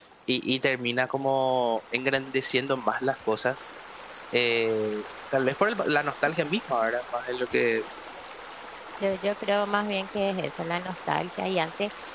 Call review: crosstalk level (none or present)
none